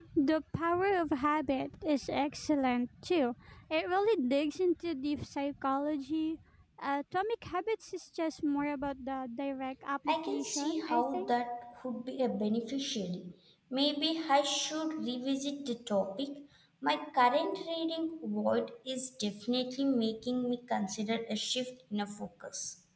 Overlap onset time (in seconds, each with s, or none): 10.1 s